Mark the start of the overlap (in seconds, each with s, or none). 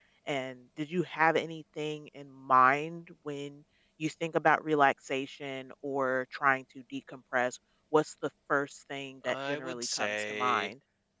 9.2 s